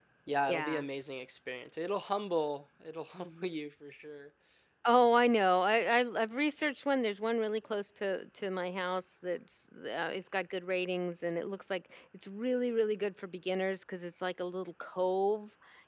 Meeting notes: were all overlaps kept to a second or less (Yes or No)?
Yes